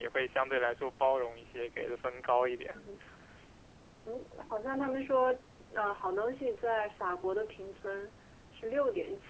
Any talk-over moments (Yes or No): No